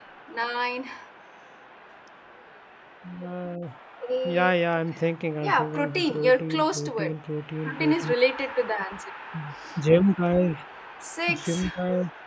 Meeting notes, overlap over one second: present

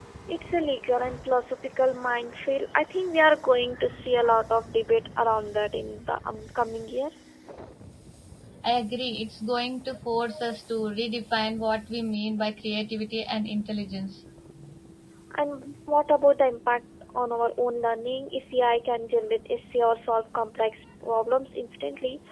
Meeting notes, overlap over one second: none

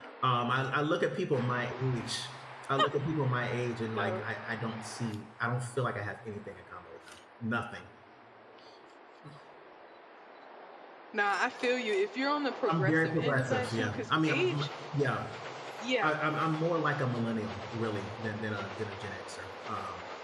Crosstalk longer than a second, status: present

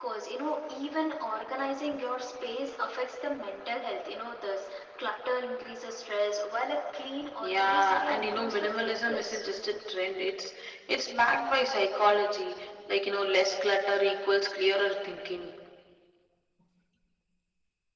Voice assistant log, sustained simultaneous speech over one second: present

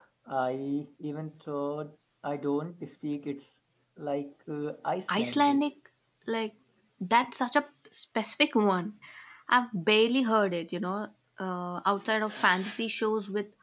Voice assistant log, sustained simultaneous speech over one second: none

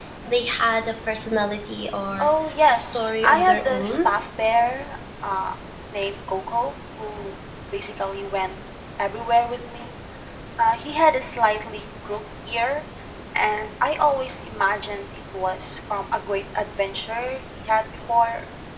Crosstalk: present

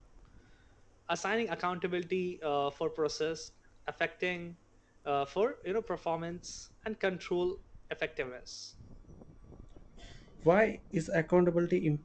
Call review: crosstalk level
none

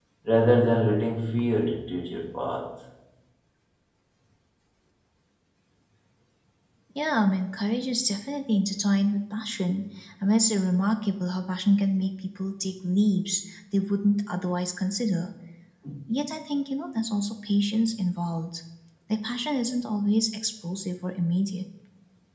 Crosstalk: none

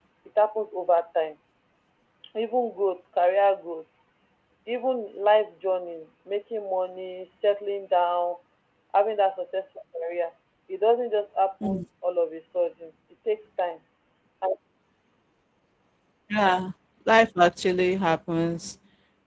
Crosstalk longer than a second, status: none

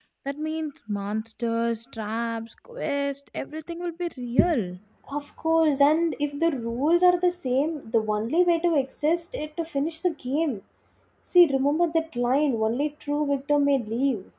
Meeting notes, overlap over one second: none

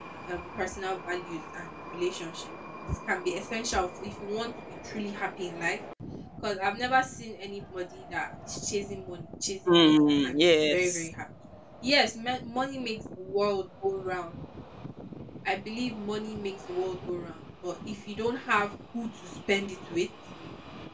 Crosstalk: present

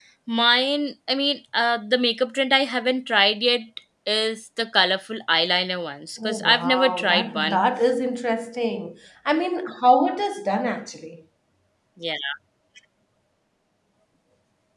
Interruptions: present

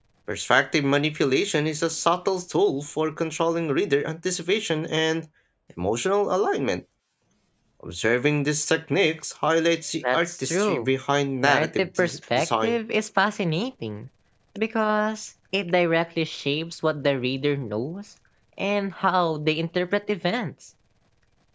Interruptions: present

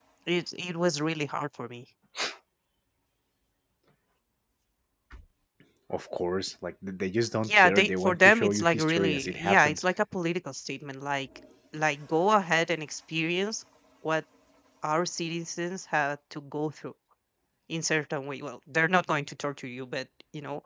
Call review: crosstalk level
present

